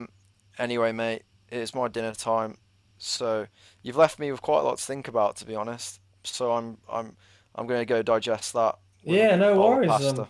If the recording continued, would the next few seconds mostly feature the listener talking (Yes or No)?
Yes